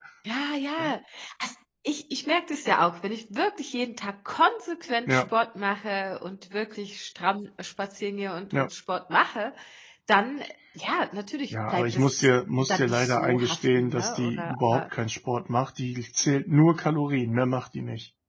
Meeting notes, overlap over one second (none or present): present